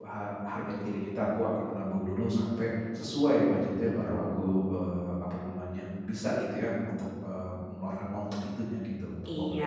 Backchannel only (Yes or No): No